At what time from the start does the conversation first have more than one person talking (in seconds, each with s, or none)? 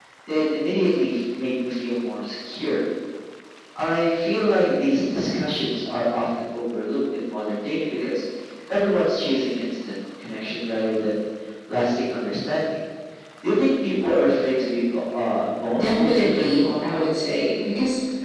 15.8 s